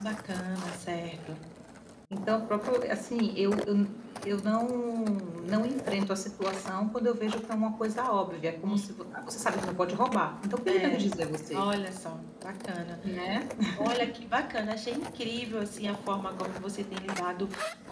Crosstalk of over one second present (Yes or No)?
No